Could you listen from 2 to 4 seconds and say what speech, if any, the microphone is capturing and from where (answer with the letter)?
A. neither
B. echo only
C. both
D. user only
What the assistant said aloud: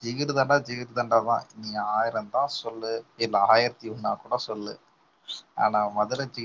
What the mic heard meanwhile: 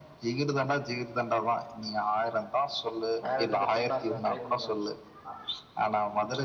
C